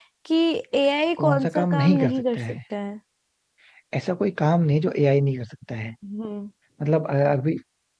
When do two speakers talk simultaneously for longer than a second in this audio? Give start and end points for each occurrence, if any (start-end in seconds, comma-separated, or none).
1.2-2.5